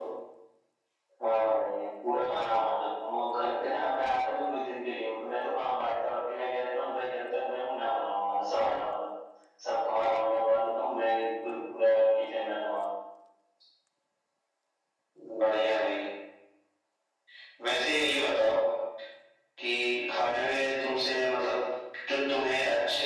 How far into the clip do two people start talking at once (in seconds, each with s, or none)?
none